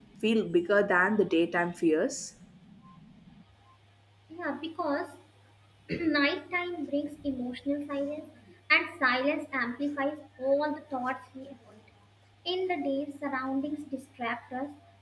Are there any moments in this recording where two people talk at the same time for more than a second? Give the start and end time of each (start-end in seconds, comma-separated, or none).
none